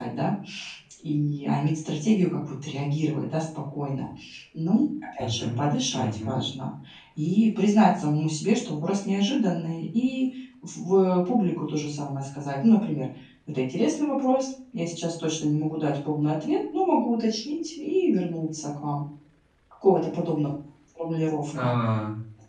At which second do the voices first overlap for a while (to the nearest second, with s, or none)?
5 s